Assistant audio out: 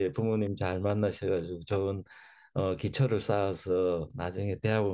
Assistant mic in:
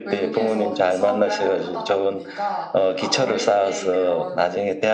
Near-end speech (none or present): present